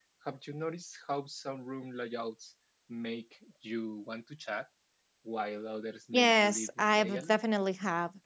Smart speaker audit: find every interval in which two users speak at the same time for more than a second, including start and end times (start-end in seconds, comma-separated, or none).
6.1-7.4